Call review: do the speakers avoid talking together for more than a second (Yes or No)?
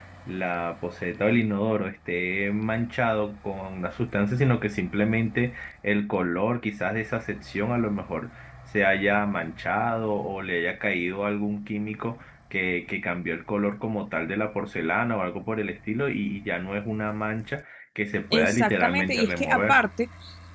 No